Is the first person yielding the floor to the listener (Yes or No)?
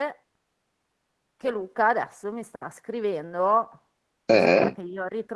No